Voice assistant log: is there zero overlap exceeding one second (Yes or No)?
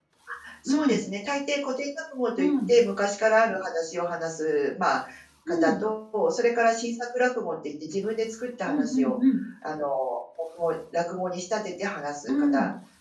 Yes